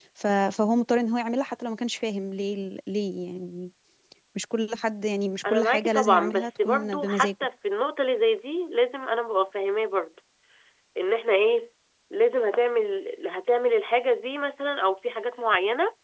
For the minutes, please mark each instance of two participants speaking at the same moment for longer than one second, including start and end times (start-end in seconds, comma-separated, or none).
5.5-7.3